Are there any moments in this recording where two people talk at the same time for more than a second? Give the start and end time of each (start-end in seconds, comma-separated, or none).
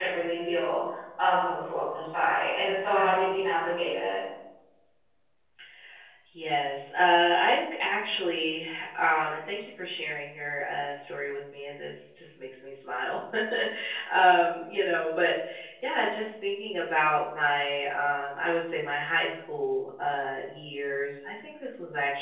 none